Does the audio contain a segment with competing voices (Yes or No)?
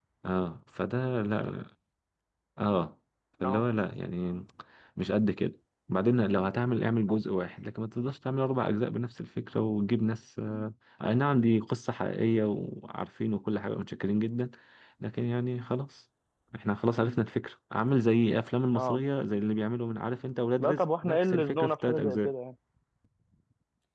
Yes